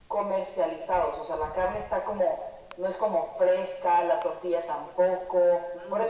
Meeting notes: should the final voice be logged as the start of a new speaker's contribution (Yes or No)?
Yes